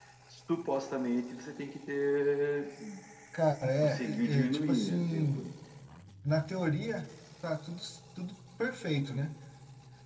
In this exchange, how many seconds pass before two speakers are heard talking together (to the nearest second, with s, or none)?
4 s